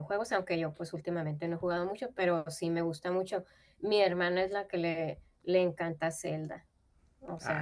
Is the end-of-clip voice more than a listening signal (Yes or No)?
Yes